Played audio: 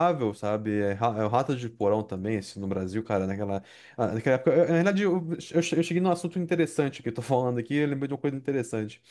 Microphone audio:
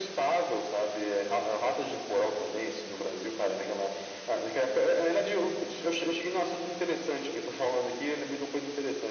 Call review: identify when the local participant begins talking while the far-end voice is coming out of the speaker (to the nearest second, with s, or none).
none